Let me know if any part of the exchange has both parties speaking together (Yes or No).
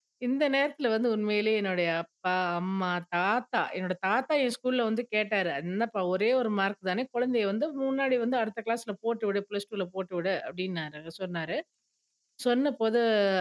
No